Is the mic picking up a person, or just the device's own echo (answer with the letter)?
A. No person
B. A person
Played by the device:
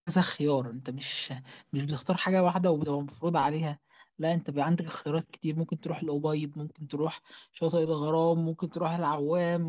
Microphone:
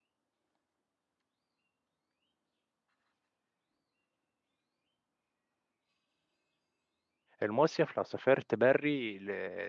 B